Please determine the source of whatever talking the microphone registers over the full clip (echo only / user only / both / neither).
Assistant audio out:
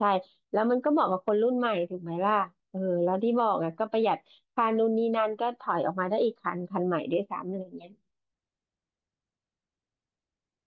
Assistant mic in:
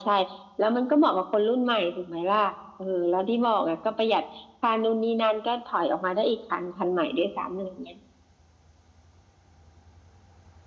echo only